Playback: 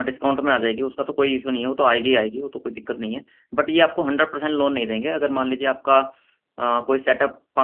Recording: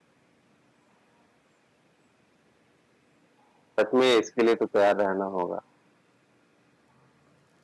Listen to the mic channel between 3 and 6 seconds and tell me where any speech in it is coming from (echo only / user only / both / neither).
user only